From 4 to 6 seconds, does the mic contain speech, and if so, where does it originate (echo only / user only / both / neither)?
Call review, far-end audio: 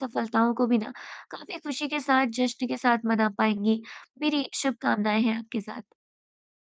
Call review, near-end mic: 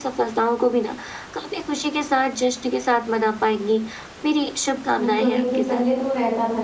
both